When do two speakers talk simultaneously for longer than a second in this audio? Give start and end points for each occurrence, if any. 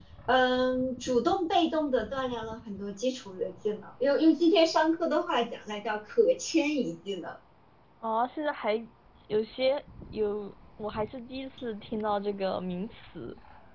none

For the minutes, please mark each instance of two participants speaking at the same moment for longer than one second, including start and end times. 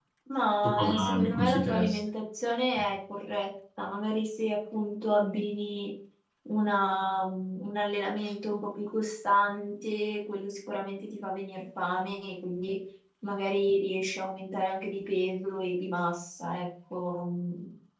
0.6-2.0

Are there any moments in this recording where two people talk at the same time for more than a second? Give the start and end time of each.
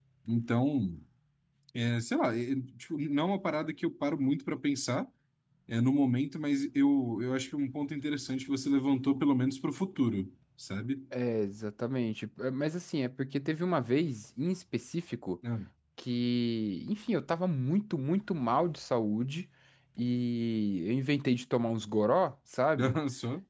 none

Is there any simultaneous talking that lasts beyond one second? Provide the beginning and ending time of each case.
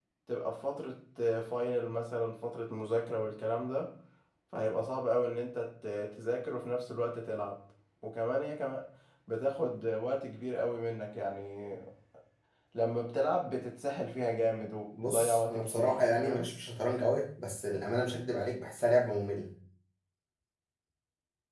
15.1-16.5

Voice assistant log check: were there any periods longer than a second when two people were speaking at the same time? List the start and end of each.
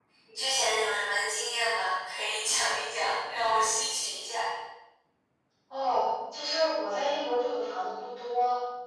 none

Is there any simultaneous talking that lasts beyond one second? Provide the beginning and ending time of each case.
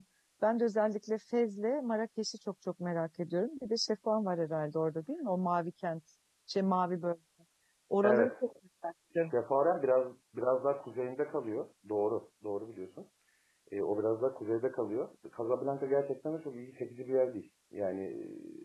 none

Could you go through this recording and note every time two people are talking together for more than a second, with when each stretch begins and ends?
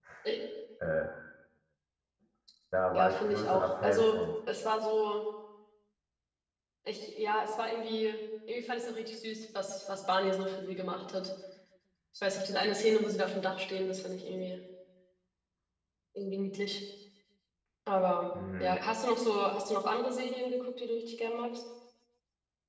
2.9-4.2

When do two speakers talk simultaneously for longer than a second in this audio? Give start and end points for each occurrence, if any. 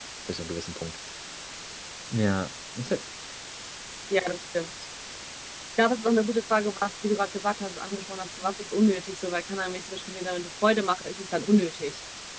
none

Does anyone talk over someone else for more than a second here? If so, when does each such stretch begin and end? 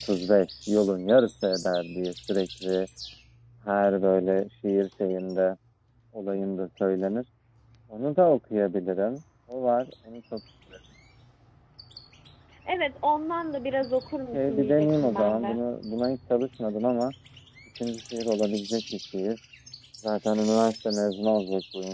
14.3-15.6

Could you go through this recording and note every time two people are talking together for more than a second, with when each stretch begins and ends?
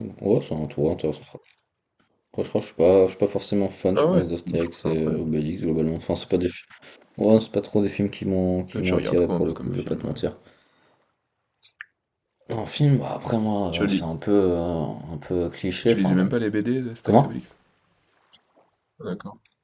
4.0-5.3, 8.8-10.2

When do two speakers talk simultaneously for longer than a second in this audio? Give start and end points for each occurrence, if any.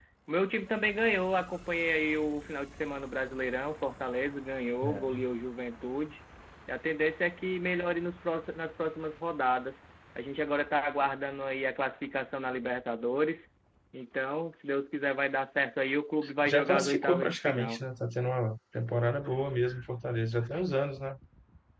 16.4-17.8

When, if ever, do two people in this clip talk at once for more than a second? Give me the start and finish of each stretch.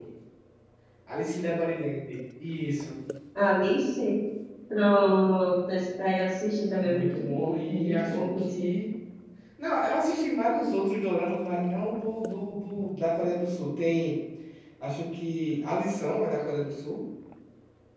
6.8-8.8

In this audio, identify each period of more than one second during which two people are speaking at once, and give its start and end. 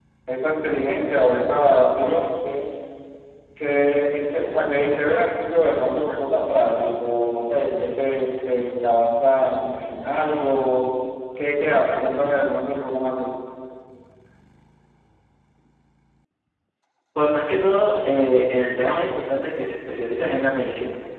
none

